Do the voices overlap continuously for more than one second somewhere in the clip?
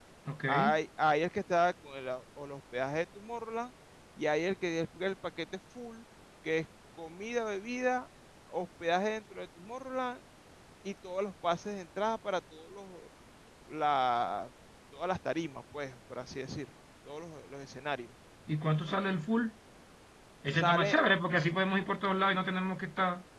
No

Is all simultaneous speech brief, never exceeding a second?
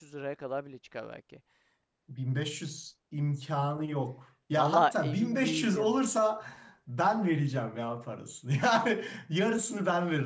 No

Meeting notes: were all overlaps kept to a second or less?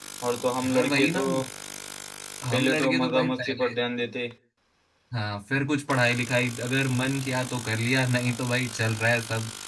No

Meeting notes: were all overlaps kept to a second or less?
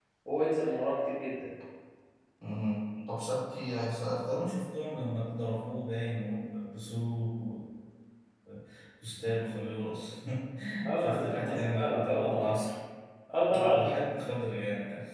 No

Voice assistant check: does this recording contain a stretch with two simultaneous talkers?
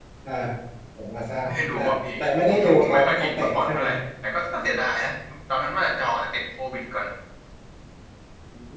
Yes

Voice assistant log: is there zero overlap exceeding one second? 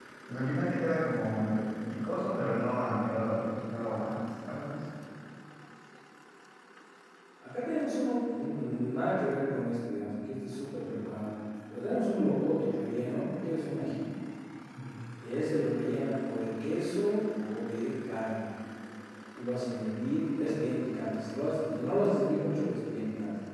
Yes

